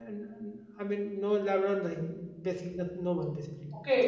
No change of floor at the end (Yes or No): No